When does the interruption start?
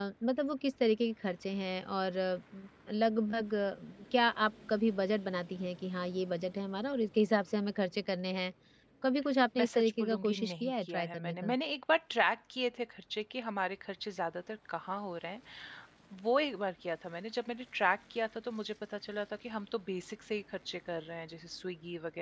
9.6 s

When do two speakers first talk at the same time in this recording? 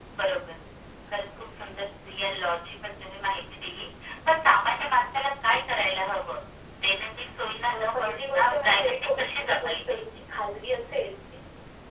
7.7 s

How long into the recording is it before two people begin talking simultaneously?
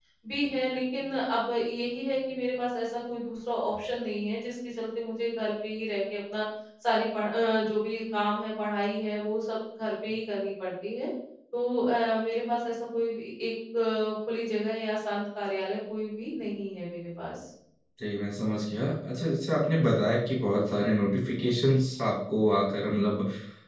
none

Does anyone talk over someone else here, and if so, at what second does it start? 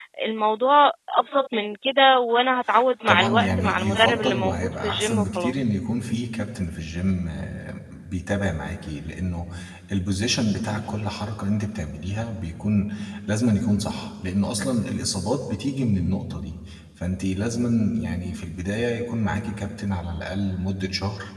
3.1 s

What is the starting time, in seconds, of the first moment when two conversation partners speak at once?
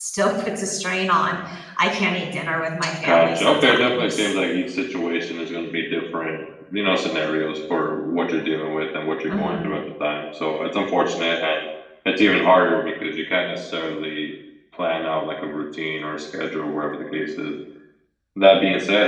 3.0 s

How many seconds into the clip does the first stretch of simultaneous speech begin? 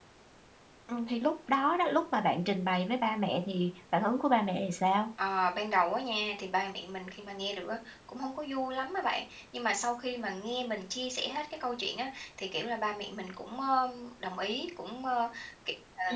none

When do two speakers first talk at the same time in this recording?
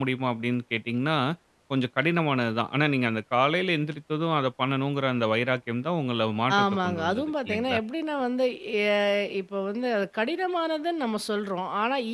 6.5 s

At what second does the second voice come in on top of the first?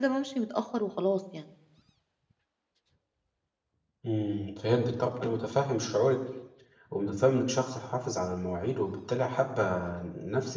none

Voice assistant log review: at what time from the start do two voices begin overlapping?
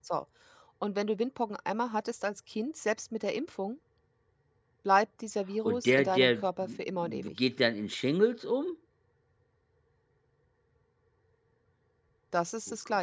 5.7 s

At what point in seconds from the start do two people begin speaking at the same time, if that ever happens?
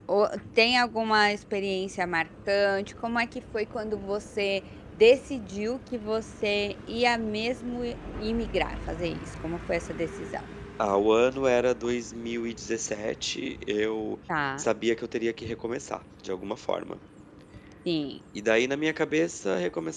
none

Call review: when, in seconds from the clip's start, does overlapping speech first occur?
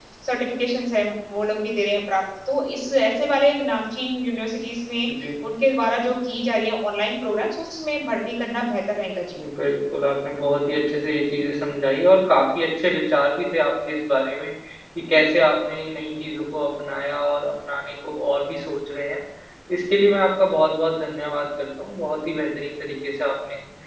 none

